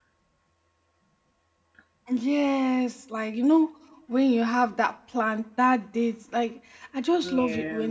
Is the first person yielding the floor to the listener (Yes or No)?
No